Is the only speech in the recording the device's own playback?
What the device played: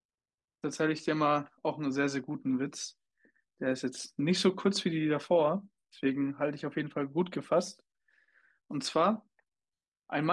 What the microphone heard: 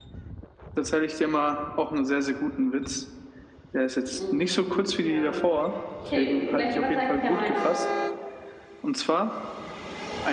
No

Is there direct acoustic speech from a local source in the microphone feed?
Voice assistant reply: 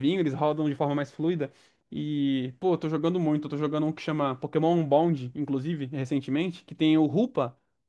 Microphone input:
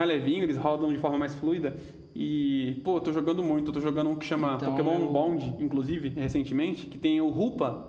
Yes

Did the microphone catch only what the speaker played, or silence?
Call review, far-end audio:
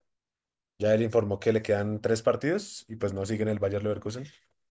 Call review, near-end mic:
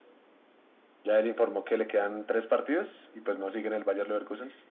Yes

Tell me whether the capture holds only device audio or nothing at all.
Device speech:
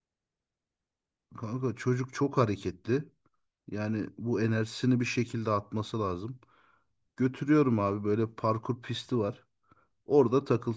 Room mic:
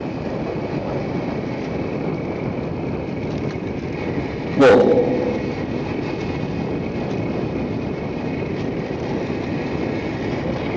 No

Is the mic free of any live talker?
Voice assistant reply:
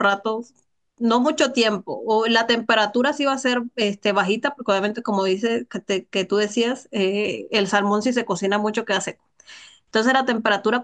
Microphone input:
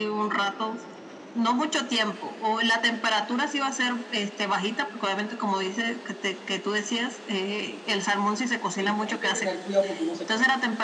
No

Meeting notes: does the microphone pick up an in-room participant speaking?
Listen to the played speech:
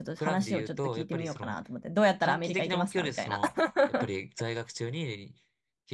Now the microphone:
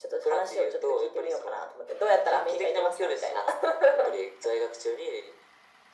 No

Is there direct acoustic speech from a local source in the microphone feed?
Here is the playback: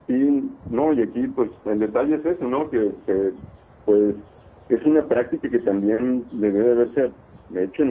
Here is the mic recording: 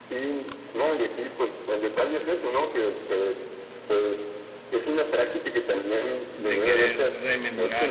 Yes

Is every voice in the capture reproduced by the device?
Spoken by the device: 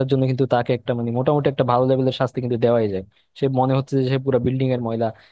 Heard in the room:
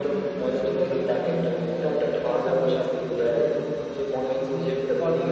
No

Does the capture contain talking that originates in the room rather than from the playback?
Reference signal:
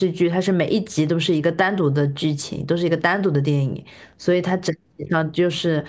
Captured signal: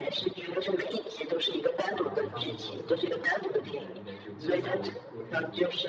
Yes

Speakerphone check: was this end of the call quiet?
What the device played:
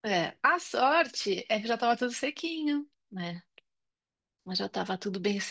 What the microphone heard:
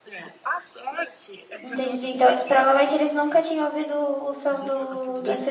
No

